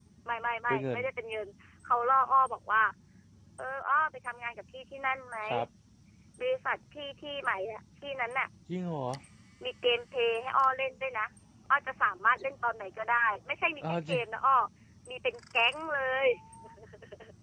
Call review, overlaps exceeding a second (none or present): none